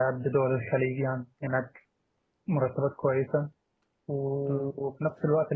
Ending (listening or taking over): listening